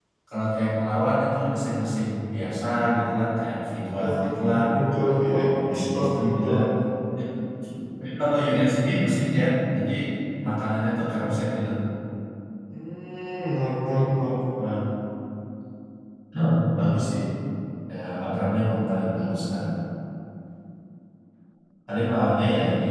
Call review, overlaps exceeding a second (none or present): present